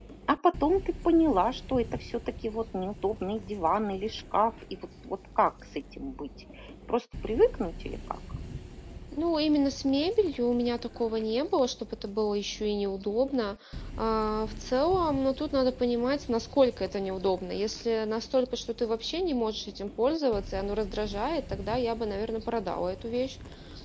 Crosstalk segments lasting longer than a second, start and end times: none

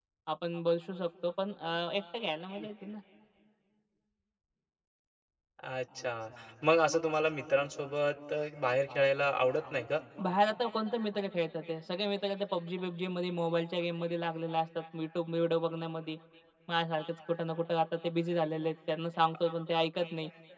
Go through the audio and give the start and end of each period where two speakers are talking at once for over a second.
none

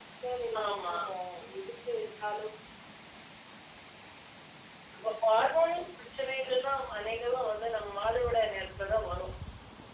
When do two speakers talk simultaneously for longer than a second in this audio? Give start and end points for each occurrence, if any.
none

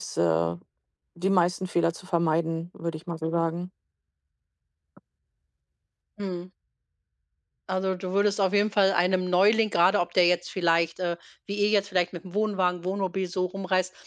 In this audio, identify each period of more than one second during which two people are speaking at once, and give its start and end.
none

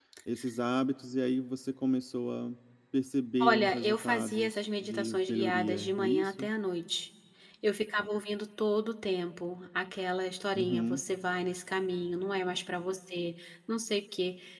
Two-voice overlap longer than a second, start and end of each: 3.4-6.5

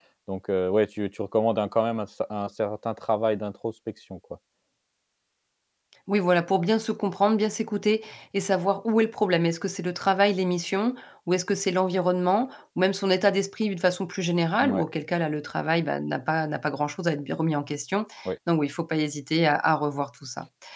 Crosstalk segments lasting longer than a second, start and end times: none

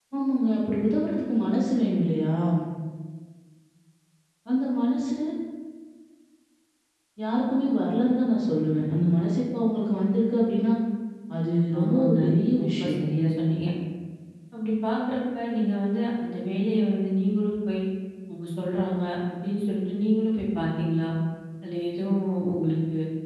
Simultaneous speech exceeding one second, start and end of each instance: none

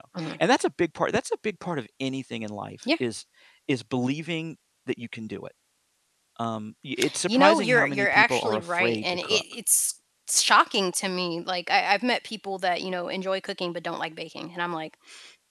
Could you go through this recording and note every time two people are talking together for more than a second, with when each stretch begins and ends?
7.2-9.4

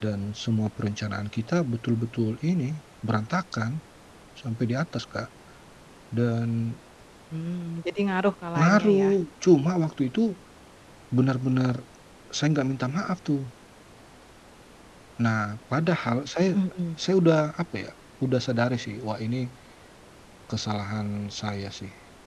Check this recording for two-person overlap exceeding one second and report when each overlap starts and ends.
none

